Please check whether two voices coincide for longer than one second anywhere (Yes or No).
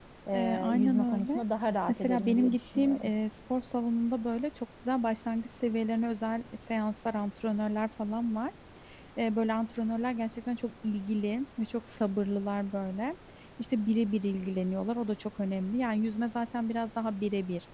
Yes